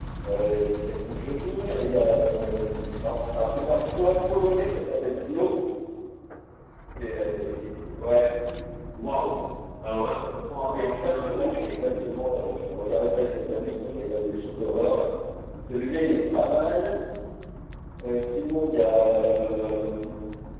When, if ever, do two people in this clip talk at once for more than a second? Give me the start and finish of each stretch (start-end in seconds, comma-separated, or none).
10.7-12.0